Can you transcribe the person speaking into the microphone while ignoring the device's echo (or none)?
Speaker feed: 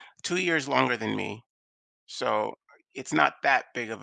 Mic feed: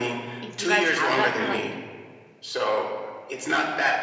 if you guys have that kinda, like,